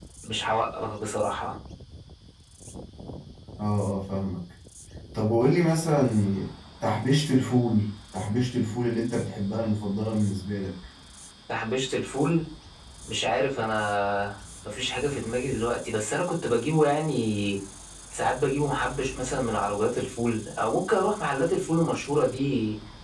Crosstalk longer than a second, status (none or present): none